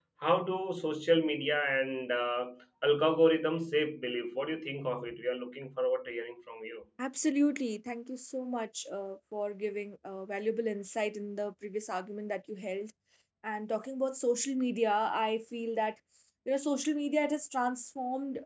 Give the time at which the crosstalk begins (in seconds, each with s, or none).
none